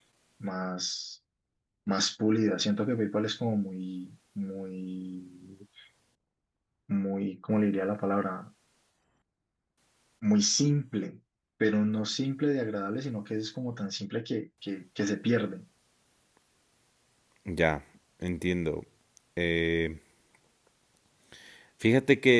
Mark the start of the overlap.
none

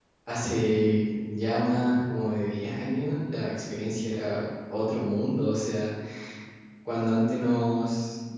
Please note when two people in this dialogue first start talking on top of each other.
none

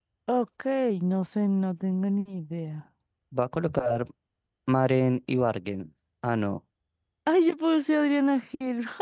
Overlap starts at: none

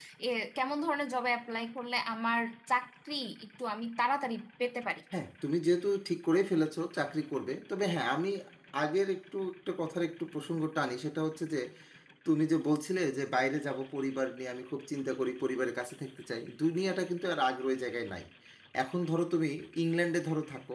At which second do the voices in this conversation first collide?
none

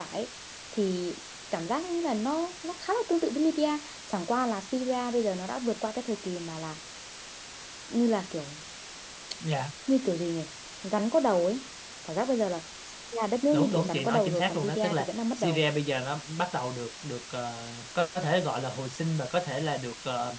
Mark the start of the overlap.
13.5 s

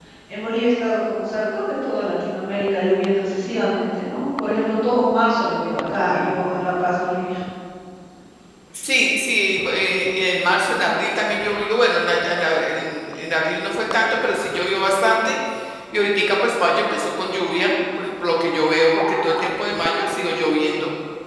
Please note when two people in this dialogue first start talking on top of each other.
none

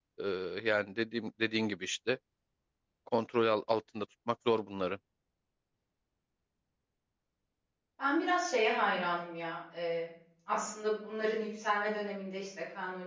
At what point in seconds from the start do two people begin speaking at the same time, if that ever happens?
none

